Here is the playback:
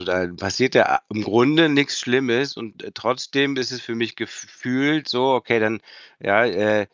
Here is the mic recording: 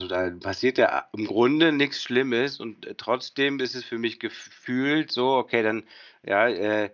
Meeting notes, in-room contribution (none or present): none